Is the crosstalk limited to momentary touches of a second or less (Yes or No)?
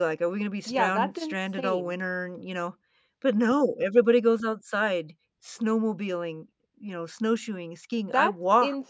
No